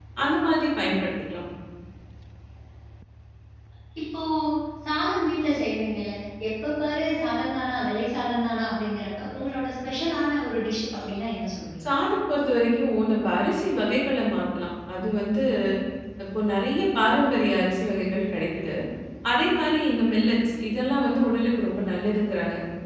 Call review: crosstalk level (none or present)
none